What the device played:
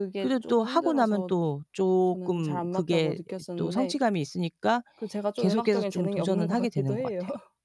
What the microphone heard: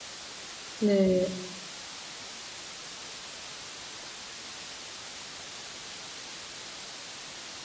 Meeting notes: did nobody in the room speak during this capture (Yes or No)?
No